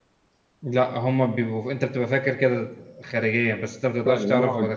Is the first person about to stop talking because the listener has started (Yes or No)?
Yes